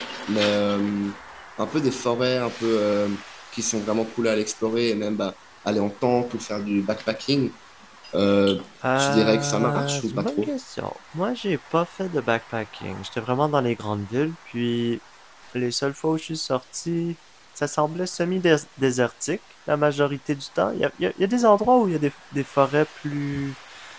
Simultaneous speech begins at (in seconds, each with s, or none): 8.9 s